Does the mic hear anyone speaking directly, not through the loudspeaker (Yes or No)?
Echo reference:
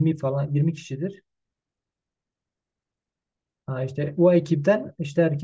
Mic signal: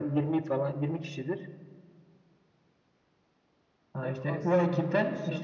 Yes